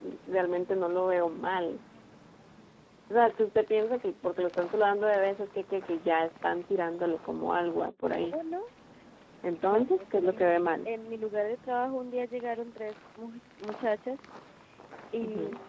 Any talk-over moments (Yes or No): Yes